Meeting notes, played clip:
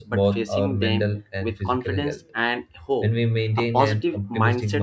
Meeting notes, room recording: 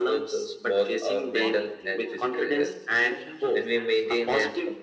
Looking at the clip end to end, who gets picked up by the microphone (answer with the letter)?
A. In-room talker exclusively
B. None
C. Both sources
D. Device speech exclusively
C